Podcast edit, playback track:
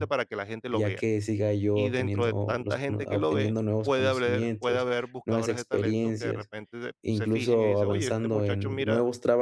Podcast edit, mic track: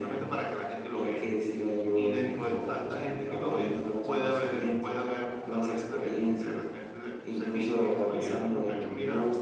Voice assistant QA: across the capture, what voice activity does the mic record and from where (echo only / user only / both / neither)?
echo only